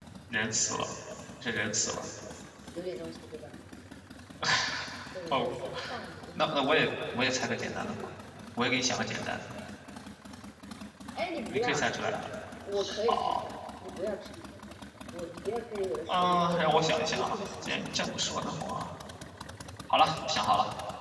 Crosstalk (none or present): present